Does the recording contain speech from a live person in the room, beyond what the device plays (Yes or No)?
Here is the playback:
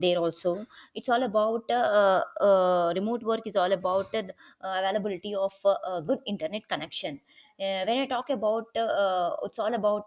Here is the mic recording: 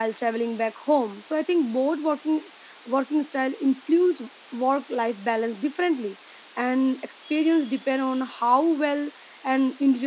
Yes